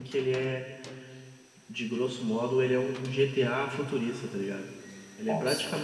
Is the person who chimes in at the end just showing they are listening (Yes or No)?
Yes